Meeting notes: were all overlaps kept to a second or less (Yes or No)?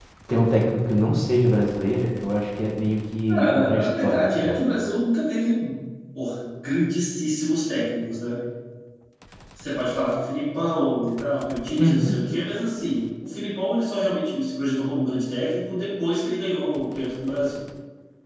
No